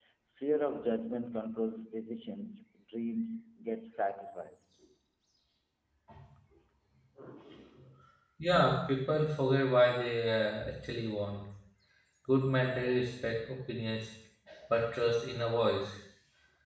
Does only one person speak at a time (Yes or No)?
Yes